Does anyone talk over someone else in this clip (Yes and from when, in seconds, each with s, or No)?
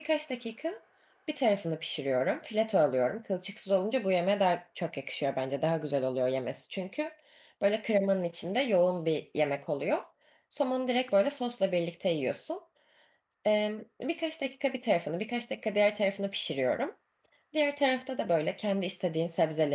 No